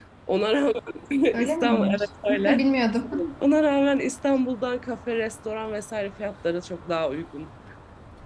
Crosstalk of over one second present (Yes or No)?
Yes